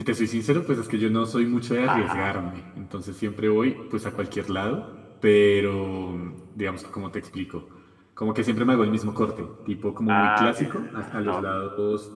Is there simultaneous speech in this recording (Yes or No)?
Yes